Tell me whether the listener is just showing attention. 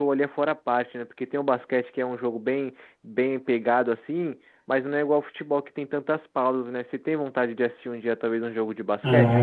No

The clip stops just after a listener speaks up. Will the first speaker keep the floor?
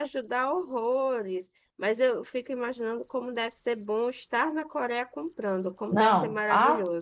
No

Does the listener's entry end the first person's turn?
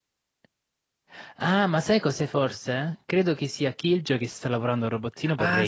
Yes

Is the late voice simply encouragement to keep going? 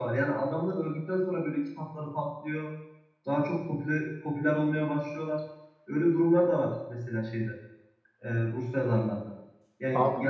Yes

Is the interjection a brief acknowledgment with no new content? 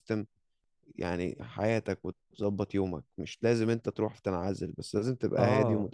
No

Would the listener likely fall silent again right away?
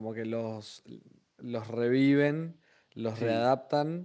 Yes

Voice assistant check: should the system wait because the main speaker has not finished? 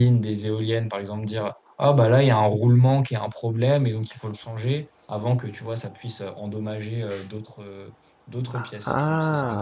No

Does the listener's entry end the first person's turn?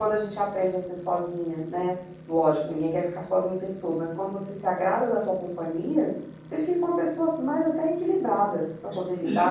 Yes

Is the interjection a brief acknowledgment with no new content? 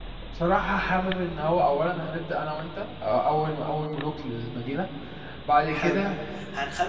No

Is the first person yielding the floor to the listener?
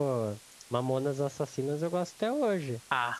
Yes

